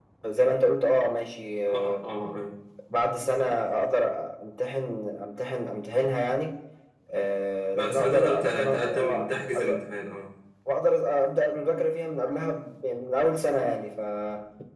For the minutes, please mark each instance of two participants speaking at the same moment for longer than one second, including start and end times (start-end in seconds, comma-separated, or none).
7.8-9.7